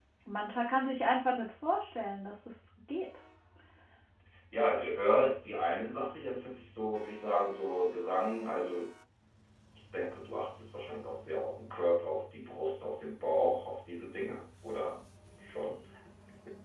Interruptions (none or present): none